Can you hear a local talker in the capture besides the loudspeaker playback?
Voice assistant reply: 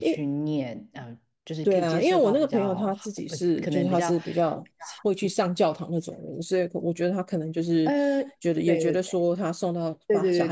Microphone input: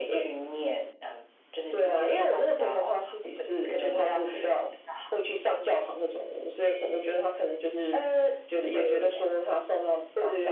No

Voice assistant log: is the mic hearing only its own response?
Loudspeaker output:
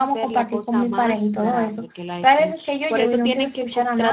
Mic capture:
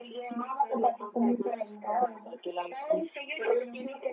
Yes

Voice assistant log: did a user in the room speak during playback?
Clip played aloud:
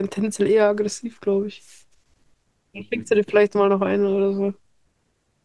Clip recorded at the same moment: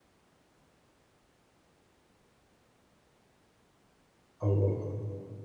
Yes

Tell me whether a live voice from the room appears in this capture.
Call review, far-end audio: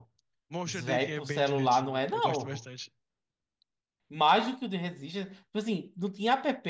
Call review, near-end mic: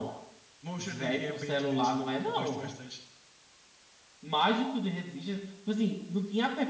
No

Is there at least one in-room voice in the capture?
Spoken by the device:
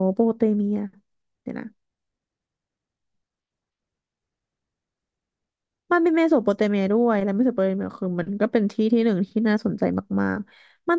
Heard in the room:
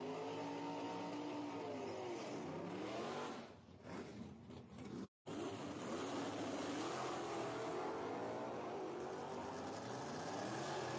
No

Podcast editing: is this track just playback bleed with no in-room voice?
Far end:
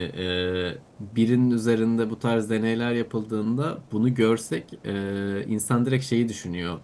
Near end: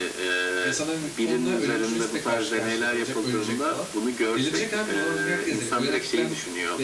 No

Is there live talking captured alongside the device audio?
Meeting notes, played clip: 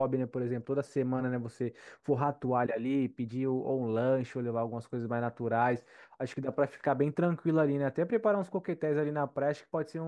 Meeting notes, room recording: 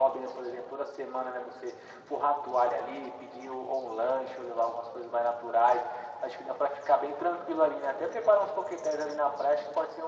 No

